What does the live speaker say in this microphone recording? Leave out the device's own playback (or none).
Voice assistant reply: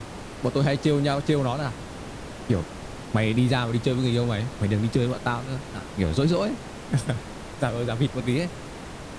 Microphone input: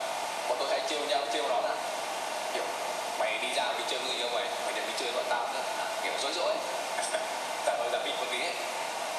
none